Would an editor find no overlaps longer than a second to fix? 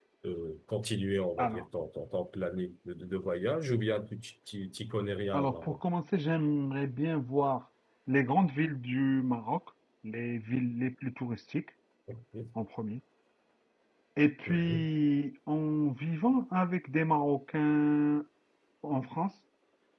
Yes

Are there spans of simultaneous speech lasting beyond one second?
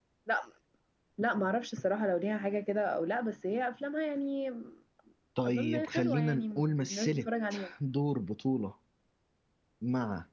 Yes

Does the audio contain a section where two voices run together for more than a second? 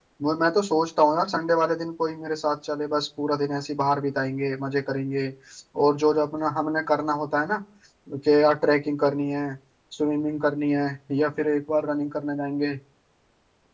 No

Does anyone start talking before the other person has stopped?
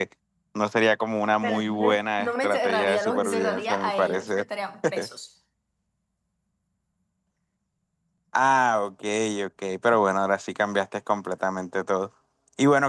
Yes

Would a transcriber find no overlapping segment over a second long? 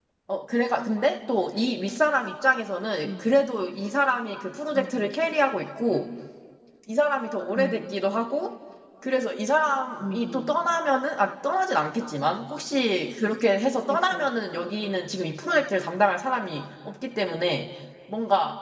Yes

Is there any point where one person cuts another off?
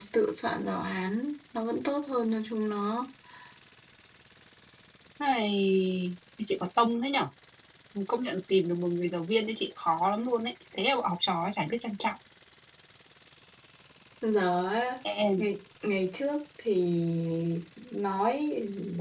No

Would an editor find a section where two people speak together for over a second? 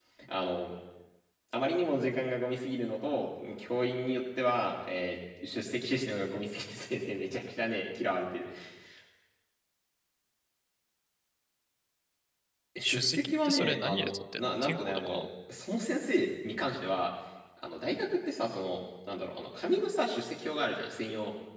Yes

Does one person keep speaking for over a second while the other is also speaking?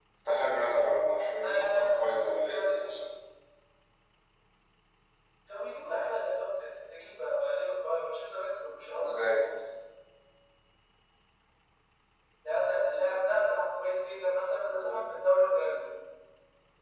No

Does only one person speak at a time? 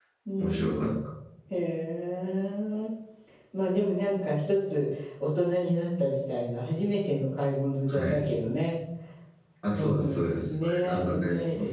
No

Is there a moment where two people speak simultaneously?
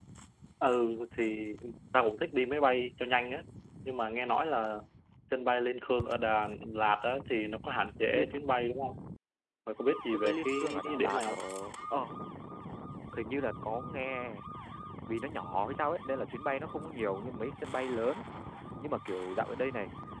Yes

